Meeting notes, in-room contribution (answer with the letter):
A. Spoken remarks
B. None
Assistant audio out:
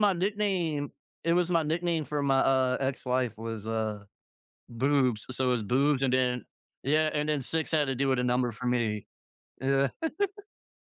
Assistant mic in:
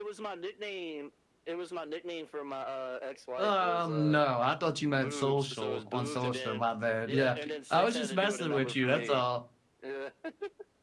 A